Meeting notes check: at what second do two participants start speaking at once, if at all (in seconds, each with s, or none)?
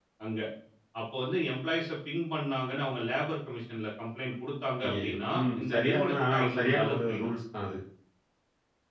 4.8 s